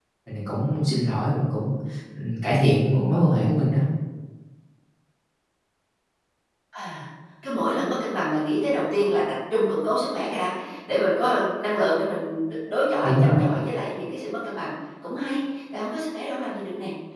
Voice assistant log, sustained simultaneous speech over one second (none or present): none